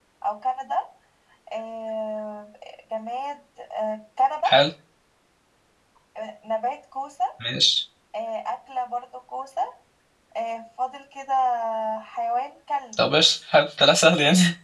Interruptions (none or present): none